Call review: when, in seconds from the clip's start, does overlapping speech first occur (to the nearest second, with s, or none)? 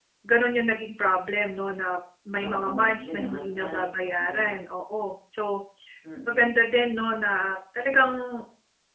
2 s